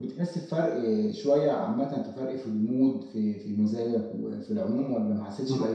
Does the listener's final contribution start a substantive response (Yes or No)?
Yes